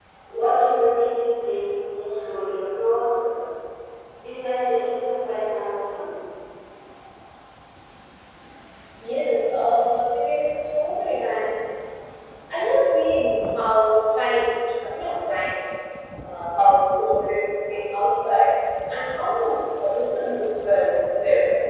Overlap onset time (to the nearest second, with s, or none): none